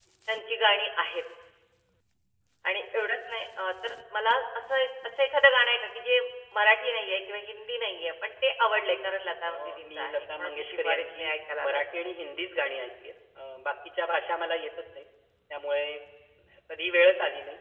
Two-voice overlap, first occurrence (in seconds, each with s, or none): 9.4 s